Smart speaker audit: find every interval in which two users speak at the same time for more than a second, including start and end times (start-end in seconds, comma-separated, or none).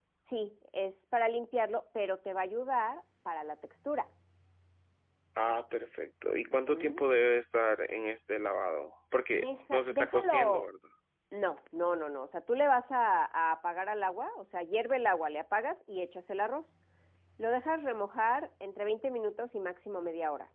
9.3-10.6